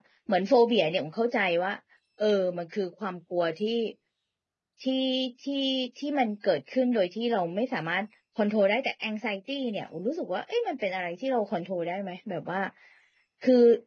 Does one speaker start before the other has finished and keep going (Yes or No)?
No